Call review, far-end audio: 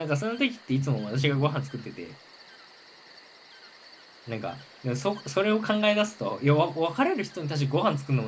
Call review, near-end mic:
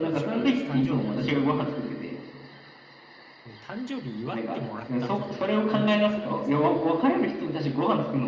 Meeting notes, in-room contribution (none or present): present